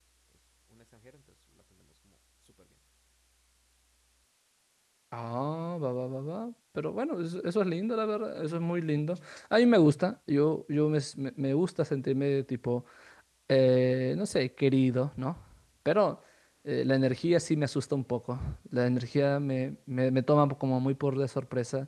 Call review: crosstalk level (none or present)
none